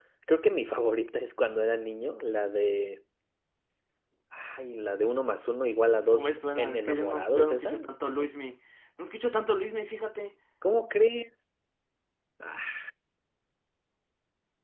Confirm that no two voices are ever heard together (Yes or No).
No